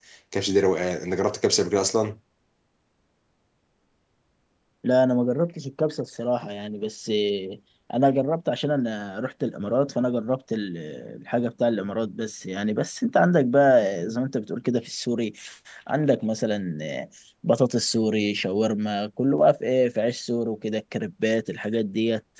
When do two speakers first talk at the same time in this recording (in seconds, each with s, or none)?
none